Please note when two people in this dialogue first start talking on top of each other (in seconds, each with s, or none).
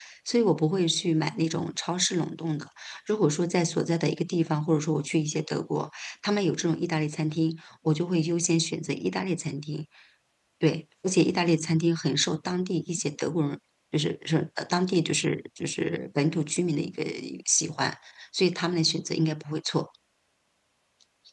none